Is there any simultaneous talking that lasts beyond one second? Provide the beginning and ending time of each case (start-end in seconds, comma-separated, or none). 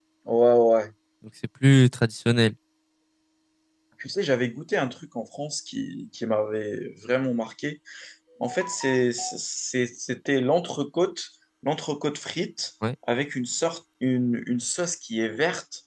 none